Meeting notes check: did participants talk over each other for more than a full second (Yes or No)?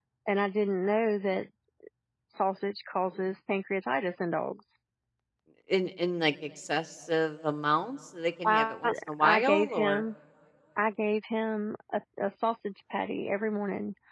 Yes